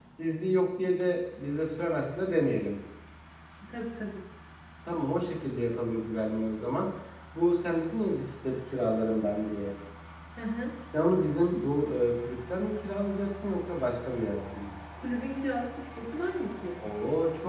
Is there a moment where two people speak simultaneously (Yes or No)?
No